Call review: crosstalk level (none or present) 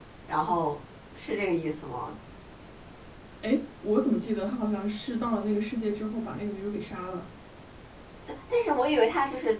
none